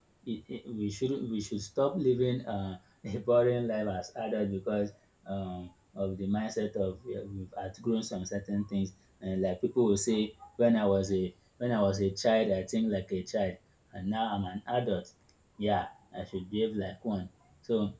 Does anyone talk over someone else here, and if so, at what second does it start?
none

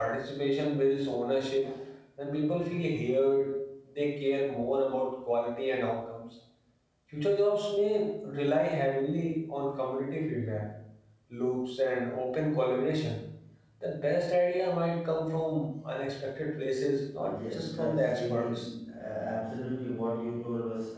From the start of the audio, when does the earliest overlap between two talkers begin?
17 s

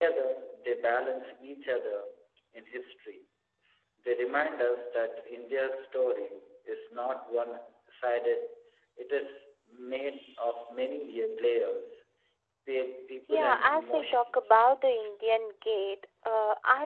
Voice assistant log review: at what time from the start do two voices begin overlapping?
13 s

